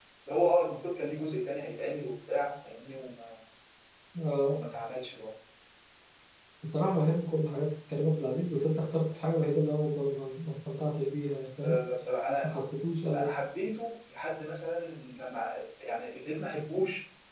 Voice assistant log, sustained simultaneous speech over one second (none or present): none